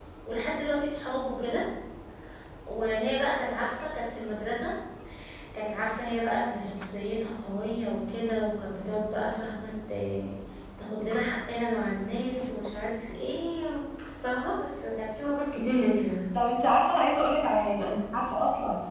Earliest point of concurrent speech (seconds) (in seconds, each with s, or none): none